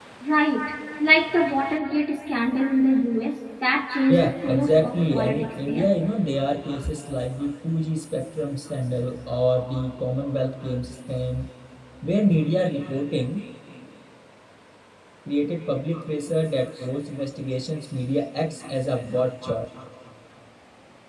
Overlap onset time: 4.1 s

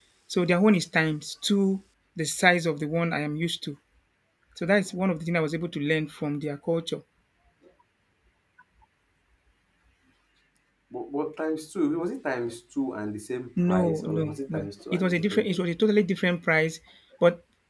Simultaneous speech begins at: 13.6 s

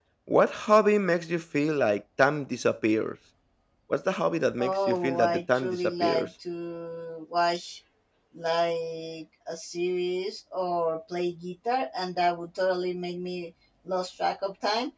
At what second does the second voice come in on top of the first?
4.6 s

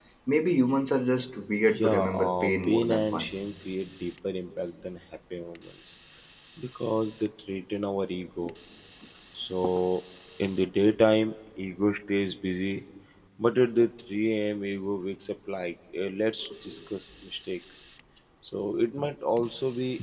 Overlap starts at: 1.7 s

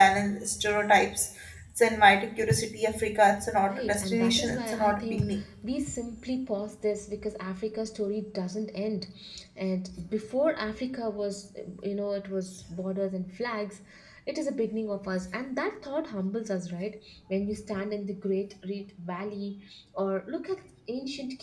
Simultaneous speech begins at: 3.6 s

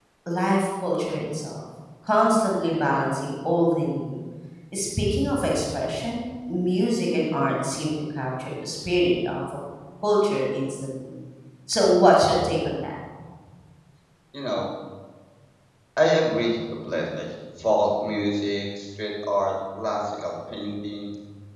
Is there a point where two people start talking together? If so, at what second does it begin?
none

